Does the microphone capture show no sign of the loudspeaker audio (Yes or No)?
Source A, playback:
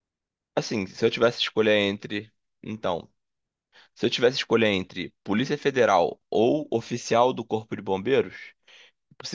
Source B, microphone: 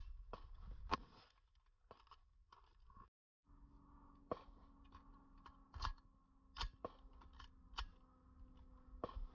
Yes